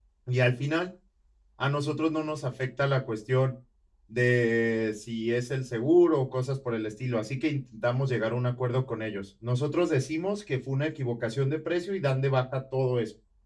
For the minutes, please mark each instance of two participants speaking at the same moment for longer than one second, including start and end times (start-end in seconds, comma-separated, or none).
none